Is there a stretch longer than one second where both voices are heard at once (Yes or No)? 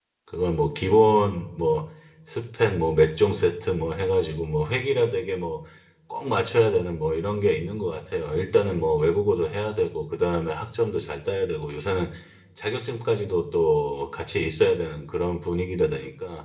No